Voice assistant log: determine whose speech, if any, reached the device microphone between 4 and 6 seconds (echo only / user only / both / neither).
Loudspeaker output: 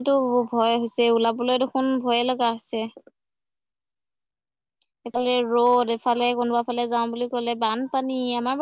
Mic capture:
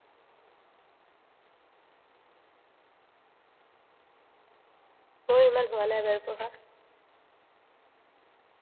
user only